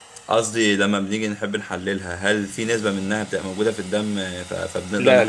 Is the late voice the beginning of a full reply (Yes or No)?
Yes